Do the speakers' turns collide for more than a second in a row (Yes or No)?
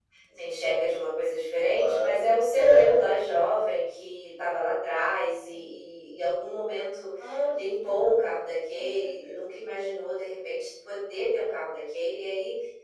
Yes